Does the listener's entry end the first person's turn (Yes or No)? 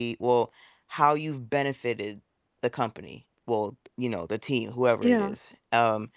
No